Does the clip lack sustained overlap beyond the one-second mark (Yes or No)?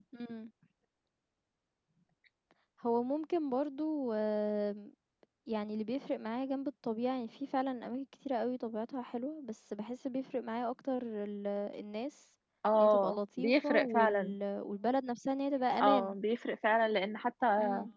No